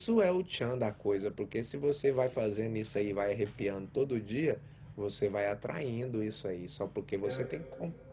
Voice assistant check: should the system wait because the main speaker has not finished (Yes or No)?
Yes